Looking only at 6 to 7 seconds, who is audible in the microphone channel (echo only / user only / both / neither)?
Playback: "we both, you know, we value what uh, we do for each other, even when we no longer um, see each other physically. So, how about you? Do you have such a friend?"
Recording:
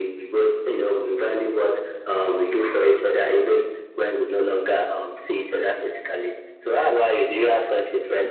echo only